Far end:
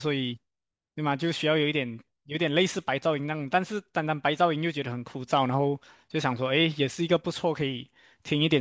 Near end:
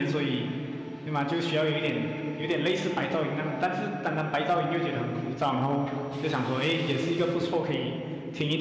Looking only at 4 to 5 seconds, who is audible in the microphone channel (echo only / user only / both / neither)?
echo only